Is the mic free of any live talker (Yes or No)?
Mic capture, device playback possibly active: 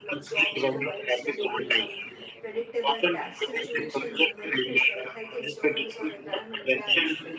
No